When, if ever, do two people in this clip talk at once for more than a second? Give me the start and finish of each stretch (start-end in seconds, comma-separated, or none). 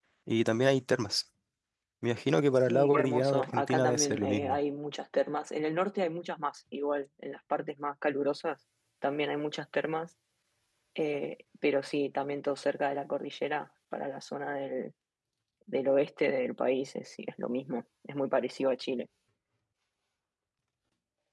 2.7-4.6